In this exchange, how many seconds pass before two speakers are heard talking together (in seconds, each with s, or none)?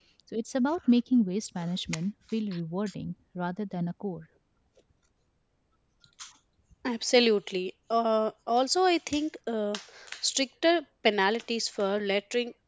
none